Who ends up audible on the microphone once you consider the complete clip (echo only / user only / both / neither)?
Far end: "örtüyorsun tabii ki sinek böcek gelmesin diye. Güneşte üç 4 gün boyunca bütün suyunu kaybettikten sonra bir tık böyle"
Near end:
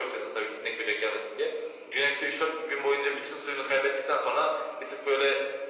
echo only